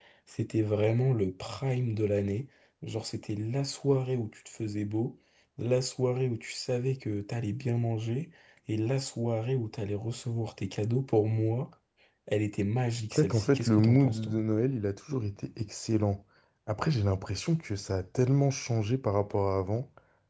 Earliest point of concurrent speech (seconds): 13.1 s

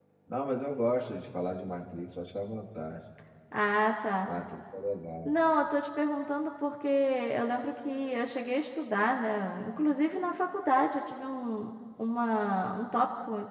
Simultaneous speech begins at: none

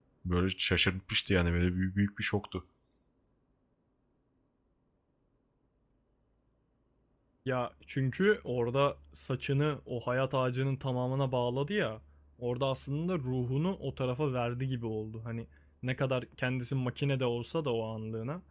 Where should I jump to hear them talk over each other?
none

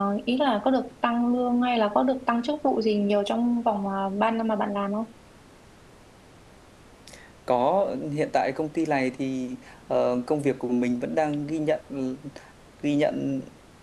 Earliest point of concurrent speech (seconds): none

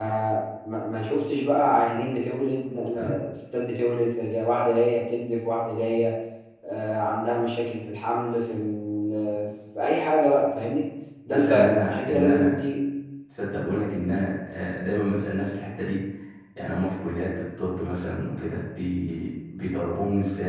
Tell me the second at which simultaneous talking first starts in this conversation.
11.3 s

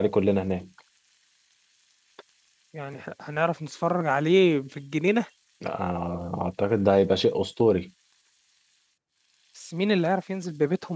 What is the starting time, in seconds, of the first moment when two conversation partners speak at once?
none

